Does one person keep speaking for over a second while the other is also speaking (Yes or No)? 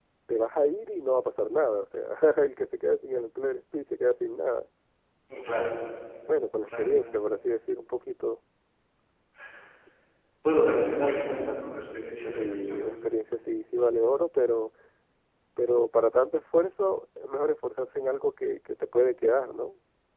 No